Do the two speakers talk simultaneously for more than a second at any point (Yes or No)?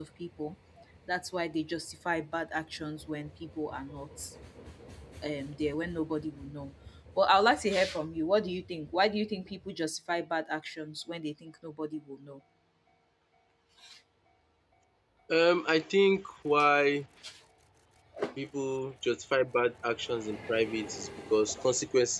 No